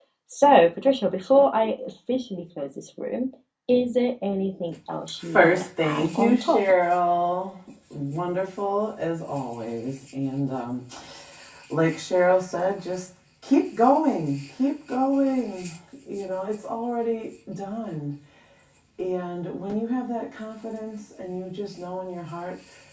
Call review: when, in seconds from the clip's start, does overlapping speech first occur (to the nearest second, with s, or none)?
5 s